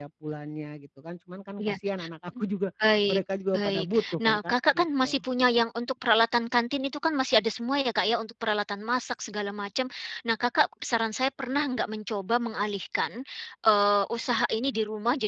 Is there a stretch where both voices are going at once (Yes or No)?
Yes